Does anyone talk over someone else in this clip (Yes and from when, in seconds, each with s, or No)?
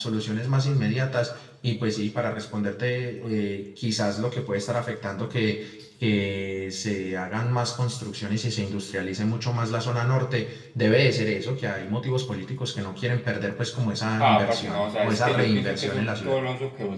Yes, from 14.2 s